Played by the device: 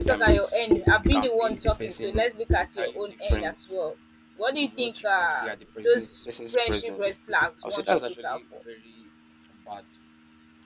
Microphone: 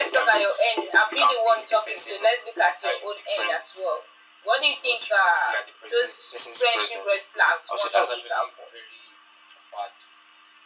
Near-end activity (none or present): none